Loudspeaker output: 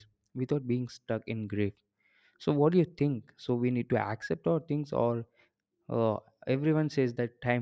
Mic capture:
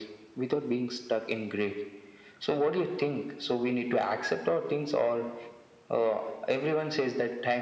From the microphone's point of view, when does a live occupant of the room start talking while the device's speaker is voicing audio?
none

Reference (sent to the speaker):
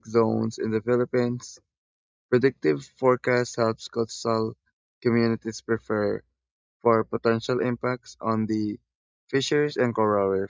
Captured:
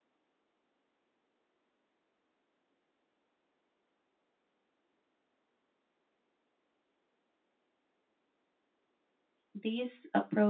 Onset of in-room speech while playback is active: 10 s

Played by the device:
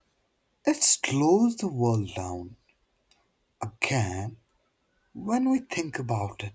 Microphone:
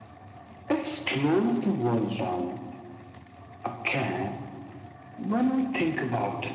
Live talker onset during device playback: none

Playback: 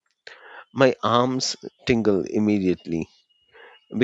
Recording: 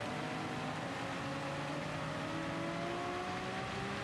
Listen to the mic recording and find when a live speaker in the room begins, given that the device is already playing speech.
none

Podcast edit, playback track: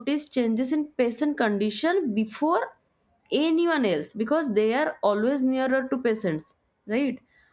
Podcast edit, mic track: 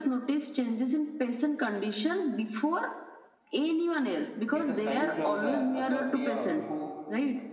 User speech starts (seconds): 5 s

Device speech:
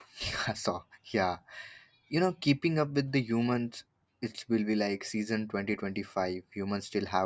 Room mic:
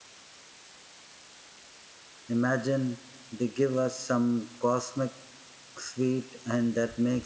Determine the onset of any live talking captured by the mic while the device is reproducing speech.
2 s

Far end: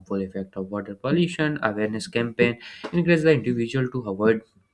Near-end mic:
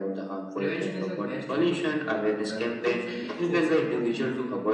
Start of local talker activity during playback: 1 s

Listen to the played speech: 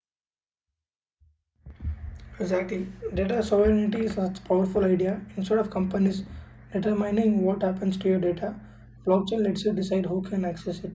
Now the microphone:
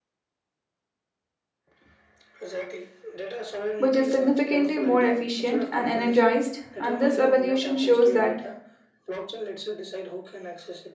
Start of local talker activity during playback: 4 s

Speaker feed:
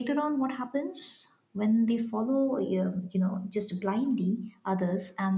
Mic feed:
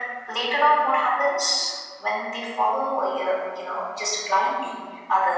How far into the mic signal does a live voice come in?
none

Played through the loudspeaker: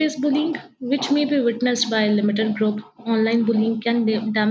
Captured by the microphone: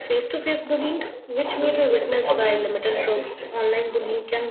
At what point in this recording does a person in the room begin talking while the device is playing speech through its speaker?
2 s

